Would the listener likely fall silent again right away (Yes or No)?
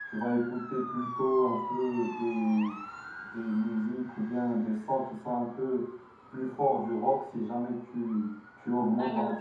Yes